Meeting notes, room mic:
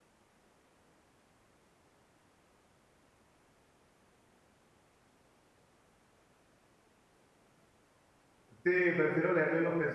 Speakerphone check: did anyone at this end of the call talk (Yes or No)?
Yes